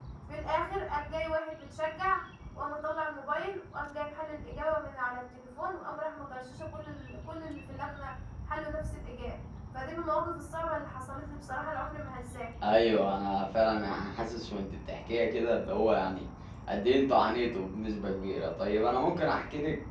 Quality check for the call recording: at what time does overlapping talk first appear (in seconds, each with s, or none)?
none